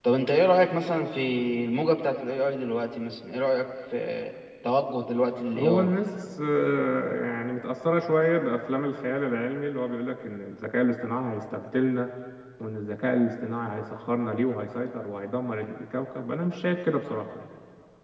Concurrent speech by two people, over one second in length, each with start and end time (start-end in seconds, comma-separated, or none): none